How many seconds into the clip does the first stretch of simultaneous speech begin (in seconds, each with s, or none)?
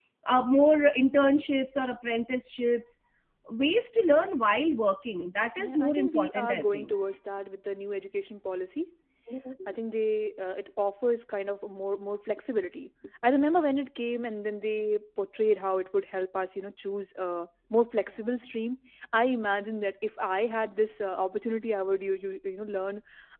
5.6 s